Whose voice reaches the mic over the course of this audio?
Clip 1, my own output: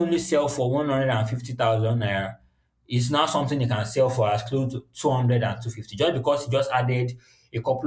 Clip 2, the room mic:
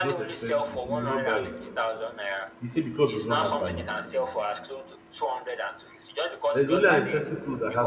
both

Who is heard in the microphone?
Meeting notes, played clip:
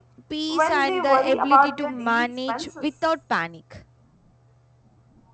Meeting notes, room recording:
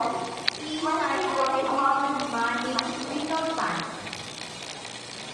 echo only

